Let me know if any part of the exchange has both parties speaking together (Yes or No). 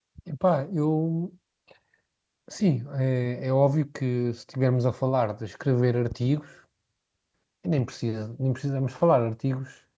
No